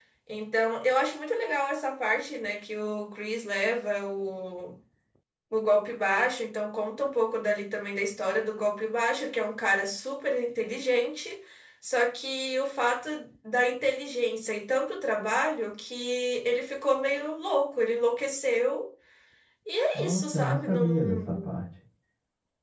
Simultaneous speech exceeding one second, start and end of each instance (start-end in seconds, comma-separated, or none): 19.9-21.5